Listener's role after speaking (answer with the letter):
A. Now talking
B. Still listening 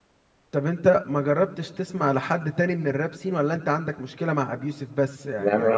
A